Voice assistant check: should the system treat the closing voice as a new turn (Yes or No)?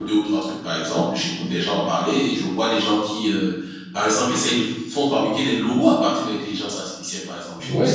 Yes